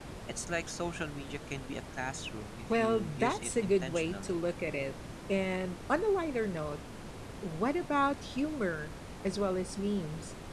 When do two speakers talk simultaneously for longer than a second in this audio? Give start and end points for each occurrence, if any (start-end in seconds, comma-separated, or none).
2.7-4.4